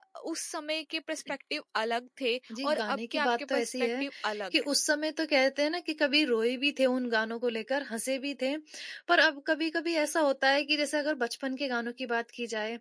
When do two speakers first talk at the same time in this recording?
2.5 s

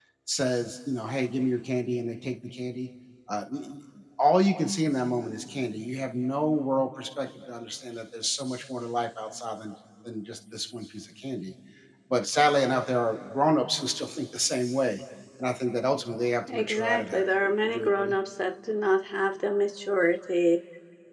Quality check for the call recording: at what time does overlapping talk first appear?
16.5 s

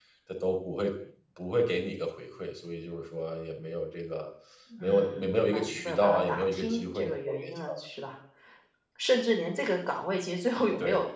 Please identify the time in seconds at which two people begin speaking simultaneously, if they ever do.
4.8 s

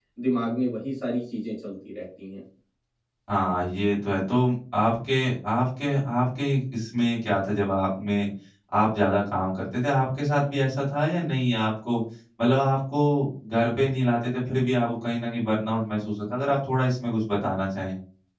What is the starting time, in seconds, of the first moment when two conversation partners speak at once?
none

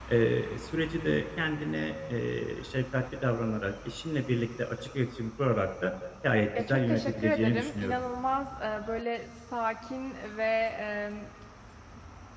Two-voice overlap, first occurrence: 6.6 s

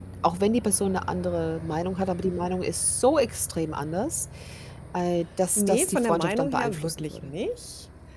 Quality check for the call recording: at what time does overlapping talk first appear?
5.6 s

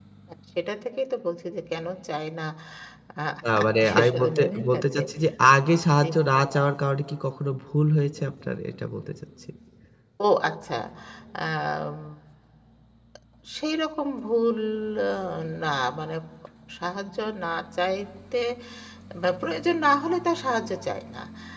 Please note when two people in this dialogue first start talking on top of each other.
3.6 s

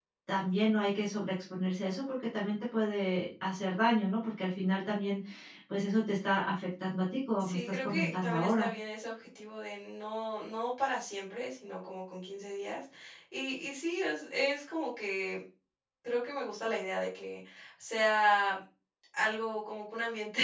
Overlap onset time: 7.4 s

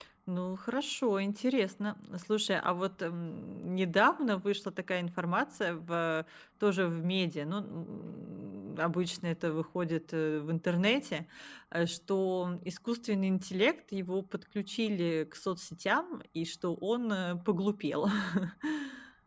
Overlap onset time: none

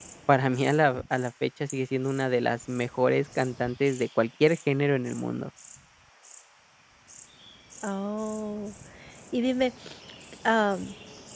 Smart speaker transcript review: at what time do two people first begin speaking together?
none

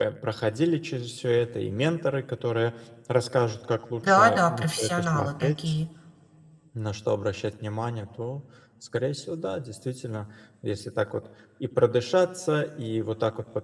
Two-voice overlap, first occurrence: 4.0 s

